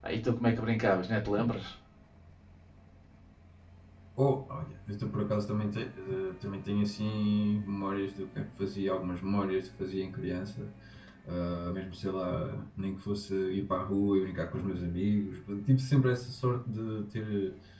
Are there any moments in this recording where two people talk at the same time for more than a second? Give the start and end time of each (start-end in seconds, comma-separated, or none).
none